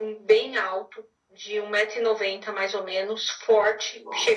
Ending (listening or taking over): listening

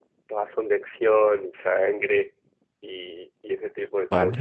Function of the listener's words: taking over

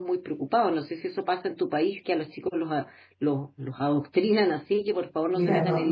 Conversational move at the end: taking over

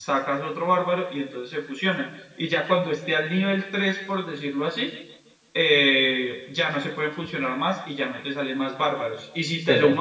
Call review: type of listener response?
listening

